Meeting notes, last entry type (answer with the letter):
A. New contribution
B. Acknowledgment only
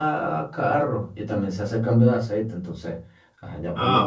A